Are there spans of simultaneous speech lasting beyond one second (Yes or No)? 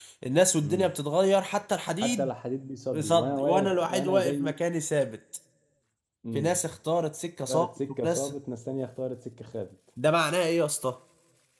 Yes